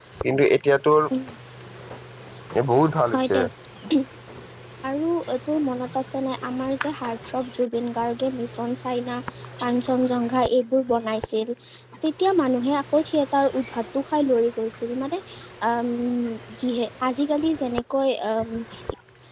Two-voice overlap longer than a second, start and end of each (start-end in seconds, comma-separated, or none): none